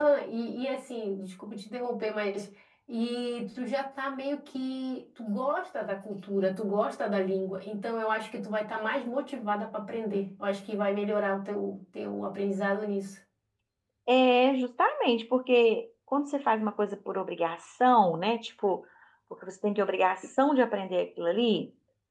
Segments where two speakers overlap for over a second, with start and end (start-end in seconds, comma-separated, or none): none